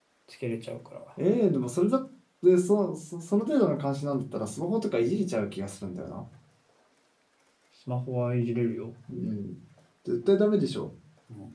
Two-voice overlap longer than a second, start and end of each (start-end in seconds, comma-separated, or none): none